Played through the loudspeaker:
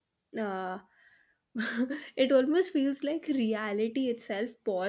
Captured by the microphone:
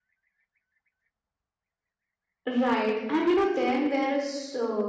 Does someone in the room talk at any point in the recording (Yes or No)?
Yes